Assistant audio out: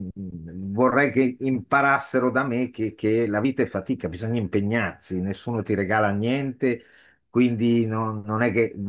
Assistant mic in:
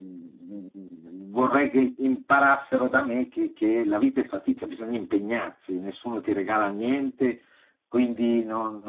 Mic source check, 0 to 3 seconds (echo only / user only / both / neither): echo only